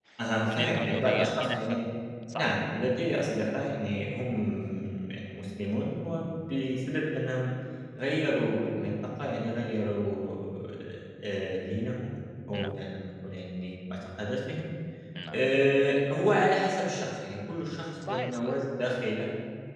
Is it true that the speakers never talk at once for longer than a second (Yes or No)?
No